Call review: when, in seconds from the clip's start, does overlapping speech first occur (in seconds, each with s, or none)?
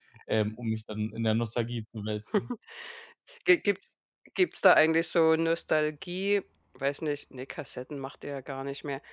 none